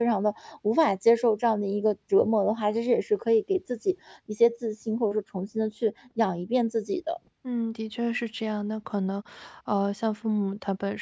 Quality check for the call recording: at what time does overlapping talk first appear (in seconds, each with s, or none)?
none